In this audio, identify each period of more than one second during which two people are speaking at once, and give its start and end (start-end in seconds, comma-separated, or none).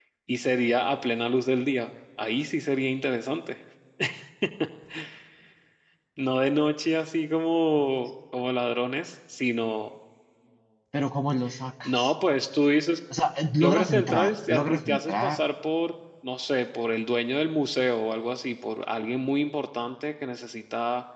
13.6-15.4